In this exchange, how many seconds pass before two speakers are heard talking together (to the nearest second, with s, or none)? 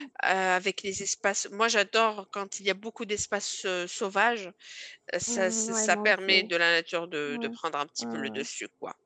5 s